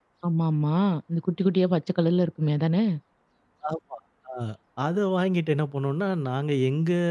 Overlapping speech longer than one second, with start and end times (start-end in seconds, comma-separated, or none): none